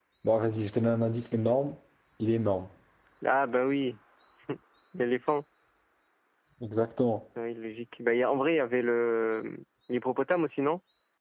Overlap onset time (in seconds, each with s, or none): none